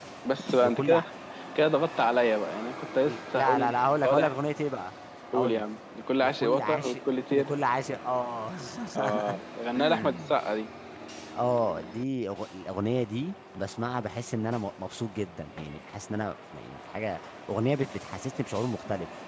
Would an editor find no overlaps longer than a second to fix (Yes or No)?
No